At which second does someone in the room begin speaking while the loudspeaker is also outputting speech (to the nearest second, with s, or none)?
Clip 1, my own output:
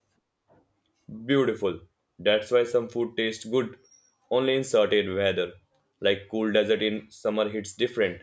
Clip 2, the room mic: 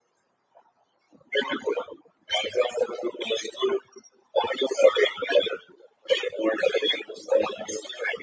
none